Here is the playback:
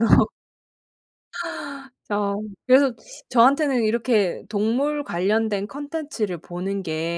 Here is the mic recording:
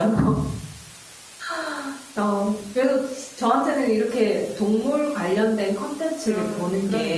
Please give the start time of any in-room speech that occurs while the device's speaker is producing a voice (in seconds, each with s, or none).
6.2 s